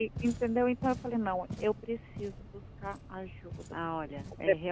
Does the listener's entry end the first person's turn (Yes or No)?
Yes